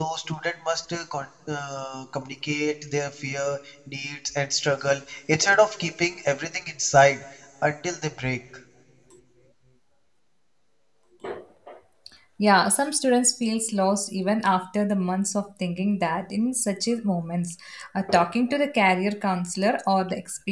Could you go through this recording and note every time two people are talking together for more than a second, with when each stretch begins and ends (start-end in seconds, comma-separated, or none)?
none